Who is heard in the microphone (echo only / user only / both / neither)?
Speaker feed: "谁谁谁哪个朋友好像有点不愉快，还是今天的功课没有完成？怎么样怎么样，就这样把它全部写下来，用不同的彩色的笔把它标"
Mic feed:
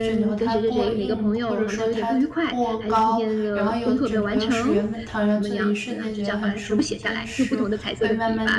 both